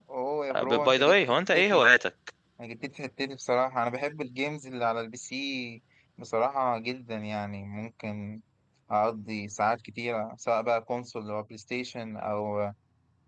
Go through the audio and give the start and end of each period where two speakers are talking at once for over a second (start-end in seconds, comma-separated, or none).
0.6-1.8